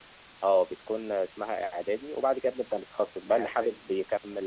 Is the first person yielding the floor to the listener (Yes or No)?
No